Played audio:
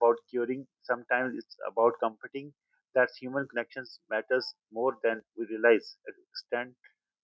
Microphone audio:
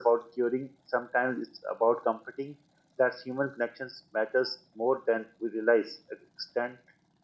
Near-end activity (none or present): none